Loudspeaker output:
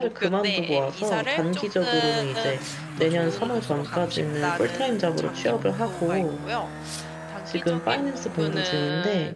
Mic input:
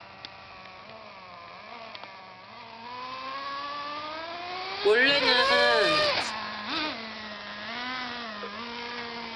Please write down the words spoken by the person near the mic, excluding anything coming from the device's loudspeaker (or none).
원래는